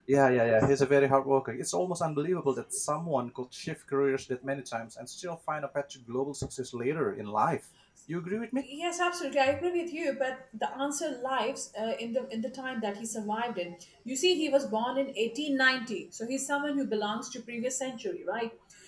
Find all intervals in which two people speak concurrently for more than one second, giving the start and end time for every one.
none

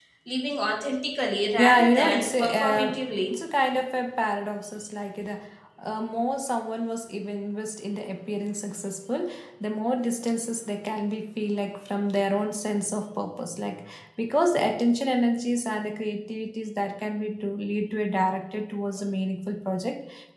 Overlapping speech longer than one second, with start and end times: 1.6-3.0

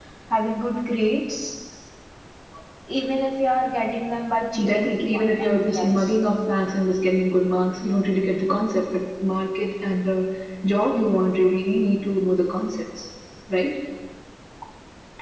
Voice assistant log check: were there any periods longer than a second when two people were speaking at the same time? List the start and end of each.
4.6-6.1

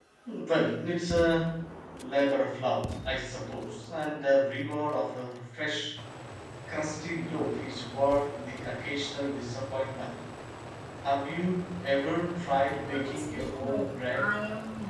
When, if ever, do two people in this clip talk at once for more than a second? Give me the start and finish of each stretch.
12.8-14.3

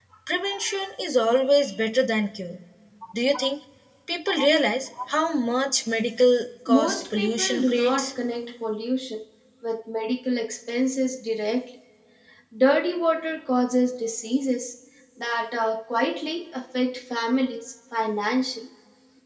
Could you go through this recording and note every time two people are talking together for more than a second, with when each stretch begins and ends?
6.7-8.1

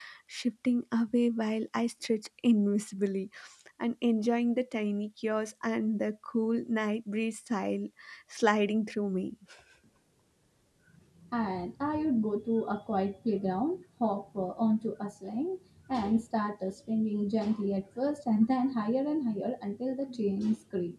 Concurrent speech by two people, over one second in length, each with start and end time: none

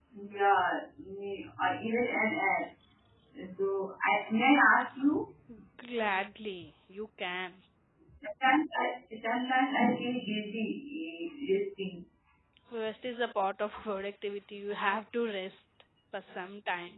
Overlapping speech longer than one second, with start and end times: none

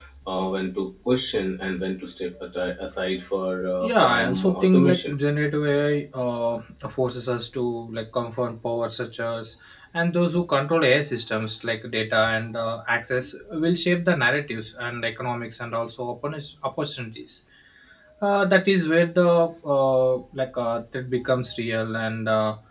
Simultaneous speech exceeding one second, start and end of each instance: 3.8-5.1

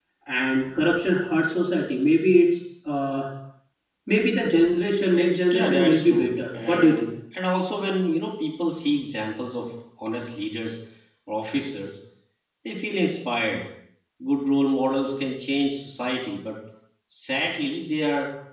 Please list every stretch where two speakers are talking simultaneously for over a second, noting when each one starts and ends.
5.5-7.1

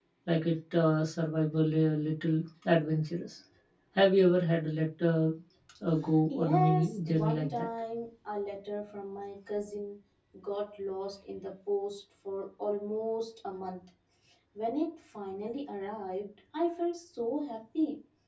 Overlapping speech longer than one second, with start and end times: 6.3-7.7

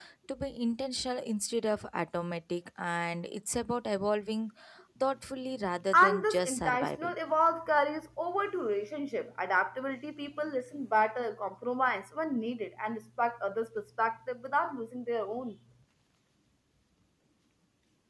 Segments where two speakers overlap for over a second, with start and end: 5.9-7.2

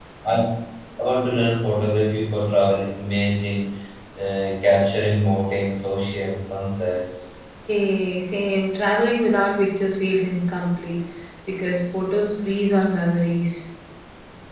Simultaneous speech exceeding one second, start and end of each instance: none

